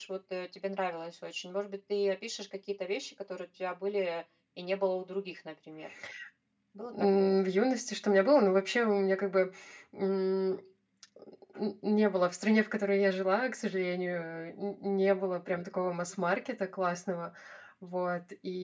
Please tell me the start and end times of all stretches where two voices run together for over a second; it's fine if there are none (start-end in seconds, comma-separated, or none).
none